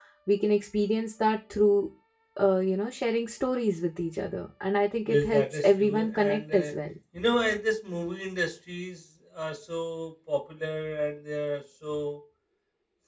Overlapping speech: Yes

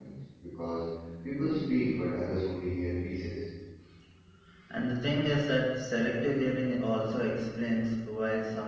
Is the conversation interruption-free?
Yes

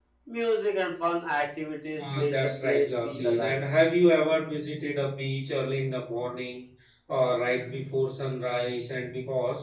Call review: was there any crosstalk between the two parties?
Yes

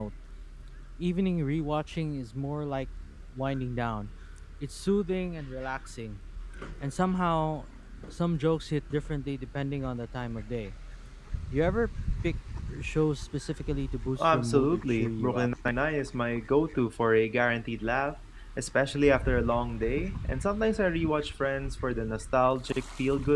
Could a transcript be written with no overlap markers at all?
No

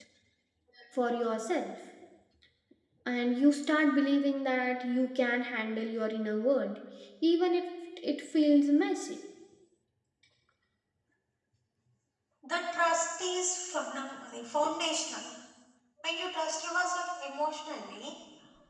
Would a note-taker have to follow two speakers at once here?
No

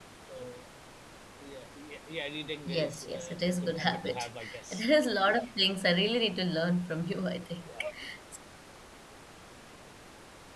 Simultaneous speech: Yes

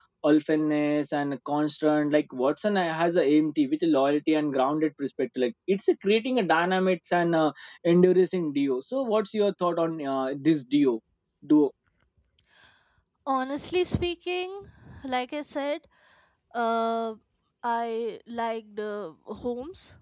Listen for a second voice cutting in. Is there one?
No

